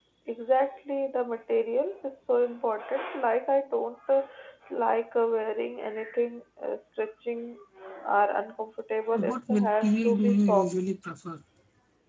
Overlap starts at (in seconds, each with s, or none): 9.1 s